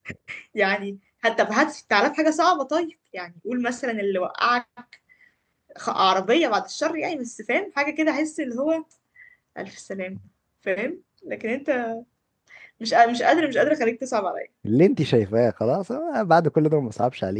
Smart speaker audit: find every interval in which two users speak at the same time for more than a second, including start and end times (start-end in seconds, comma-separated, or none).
none